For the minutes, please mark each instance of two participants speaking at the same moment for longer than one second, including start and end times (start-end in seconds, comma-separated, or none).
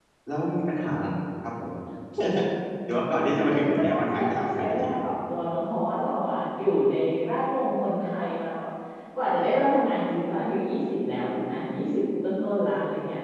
3.1-5.0